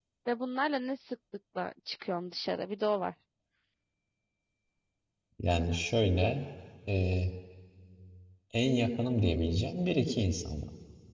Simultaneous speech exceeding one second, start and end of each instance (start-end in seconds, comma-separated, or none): none